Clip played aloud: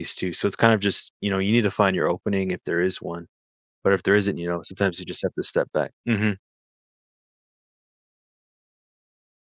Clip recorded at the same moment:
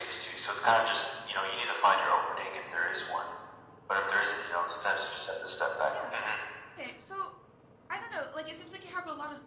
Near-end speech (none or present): present